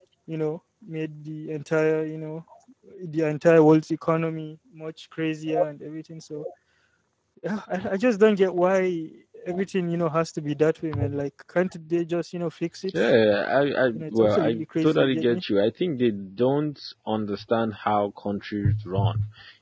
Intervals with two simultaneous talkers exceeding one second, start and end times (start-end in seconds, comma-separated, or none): 13.9-15.4